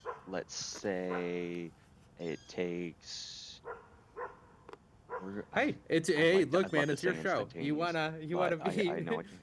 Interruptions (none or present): present